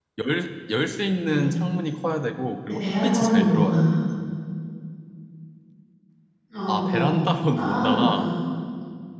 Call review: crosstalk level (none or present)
present